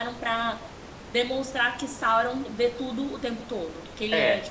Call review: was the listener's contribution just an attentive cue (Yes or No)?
No